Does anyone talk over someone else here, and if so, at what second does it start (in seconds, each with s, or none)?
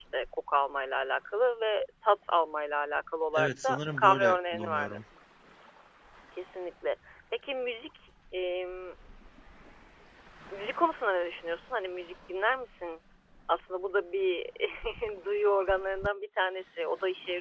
3.4 s